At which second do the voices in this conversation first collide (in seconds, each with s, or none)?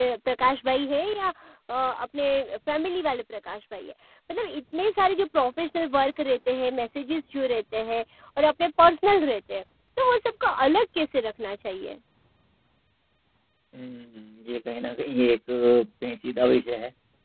none